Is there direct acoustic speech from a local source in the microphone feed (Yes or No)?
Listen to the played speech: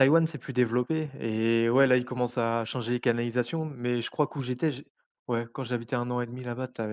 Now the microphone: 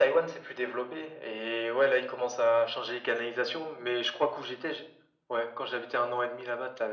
No